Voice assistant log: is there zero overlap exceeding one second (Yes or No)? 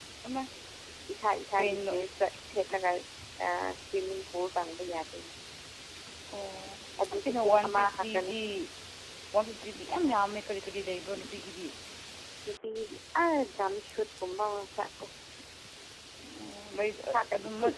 No